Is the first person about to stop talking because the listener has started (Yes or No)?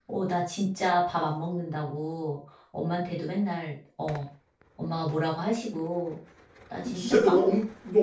Yes